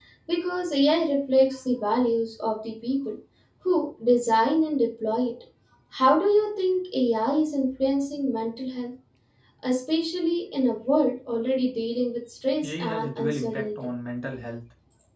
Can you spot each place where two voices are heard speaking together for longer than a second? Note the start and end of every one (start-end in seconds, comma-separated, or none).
12.6-13.9